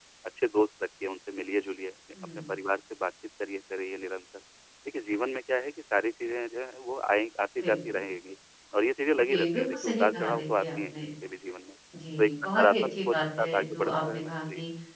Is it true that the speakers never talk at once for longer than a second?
No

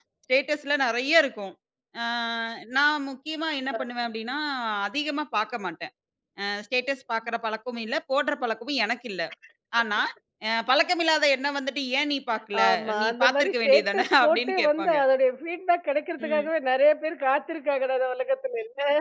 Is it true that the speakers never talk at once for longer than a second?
No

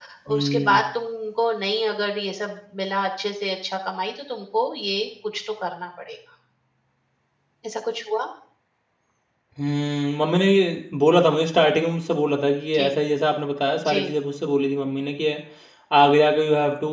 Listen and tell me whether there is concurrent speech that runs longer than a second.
No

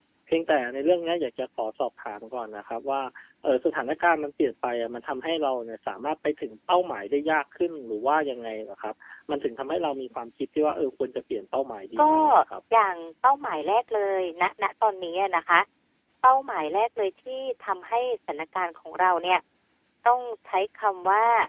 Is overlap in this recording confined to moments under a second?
Yes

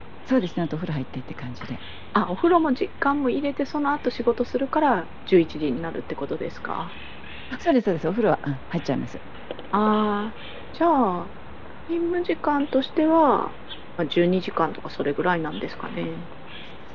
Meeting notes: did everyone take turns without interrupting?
Yes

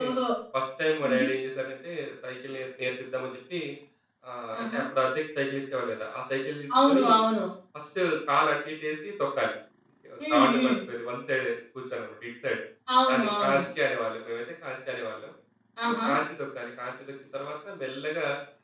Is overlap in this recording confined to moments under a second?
Yes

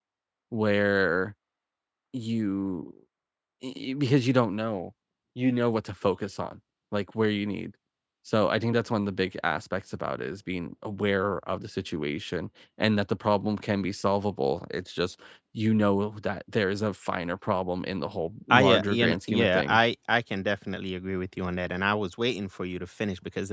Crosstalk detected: Yes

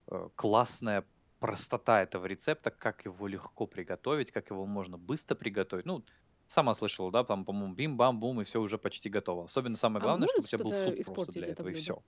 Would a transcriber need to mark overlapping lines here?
Yes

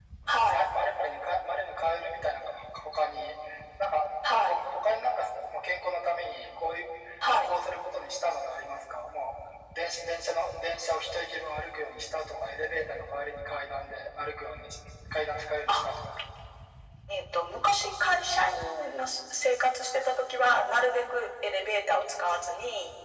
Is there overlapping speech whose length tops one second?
No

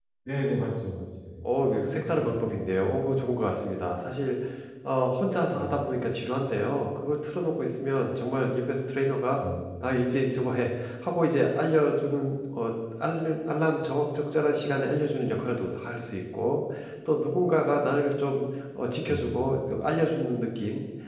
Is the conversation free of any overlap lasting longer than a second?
No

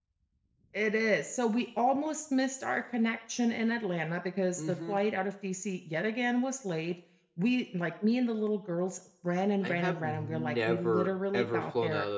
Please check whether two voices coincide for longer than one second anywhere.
Yes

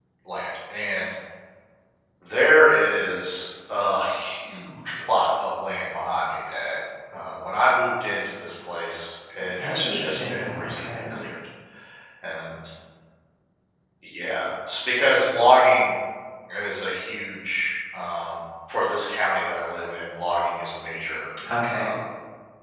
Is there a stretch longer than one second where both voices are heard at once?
Yes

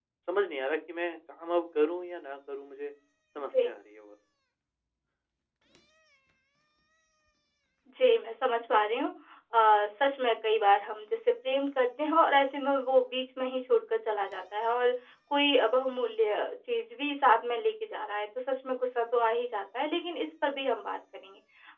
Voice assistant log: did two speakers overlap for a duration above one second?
No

